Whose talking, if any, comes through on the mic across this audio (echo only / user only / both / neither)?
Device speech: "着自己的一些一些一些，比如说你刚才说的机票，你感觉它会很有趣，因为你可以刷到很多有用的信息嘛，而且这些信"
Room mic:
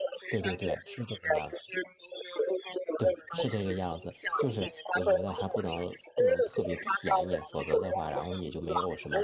both